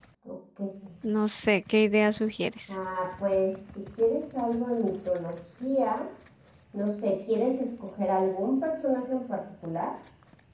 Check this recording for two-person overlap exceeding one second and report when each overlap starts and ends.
none

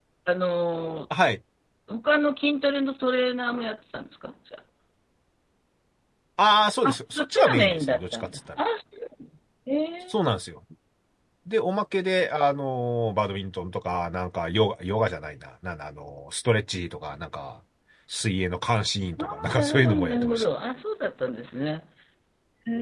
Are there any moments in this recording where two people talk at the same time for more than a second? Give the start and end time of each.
6.8-8.6, 19.2-20.4

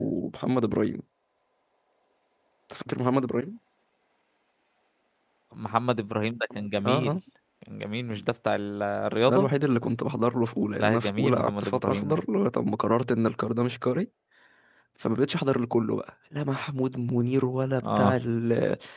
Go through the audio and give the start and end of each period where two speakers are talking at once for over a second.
10.8-12.2

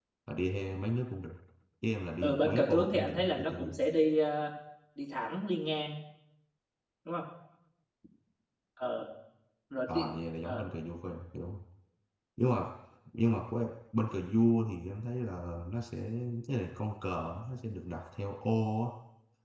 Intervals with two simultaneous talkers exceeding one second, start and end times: 2.2-3.7

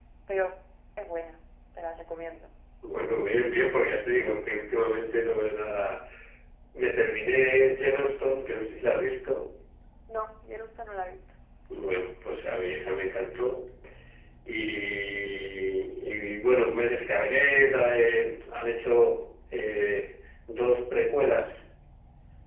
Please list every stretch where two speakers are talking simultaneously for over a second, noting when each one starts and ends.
none

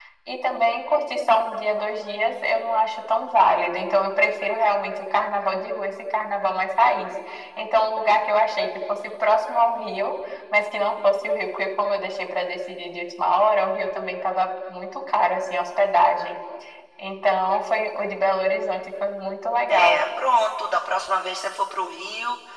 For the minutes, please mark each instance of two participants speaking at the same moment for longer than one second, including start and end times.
none

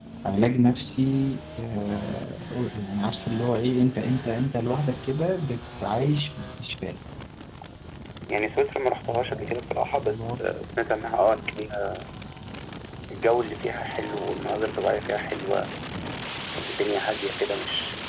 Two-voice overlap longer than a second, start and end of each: 9.1-10.4

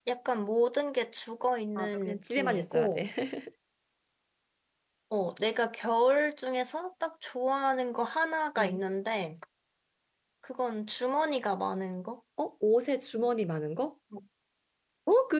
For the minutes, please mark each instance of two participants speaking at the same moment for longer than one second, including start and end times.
1.8-3.0

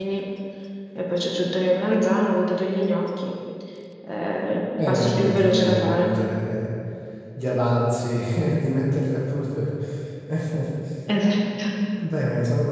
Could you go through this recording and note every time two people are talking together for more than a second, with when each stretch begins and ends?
4.9-6.1

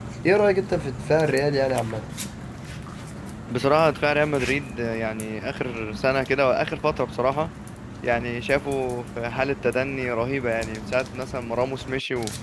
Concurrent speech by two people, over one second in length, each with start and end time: none

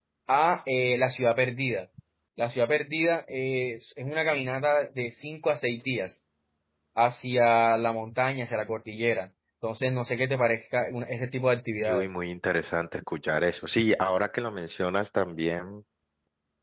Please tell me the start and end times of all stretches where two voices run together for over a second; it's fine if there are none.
none

